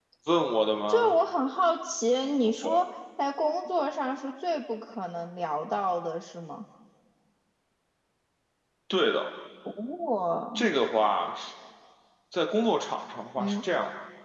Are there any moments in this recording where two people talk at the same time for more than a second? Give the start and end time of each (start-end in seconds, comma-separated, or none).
none